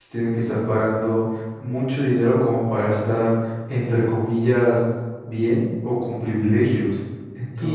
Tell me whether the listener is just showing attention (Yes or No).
No